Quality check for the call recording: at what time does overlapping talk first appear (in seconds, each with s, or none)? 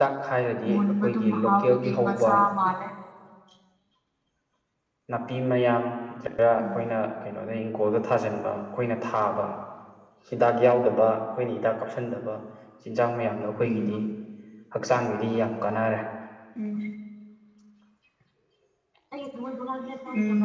0.7 s